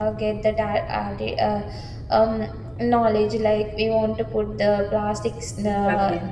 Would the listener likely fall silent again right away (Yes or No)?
Yes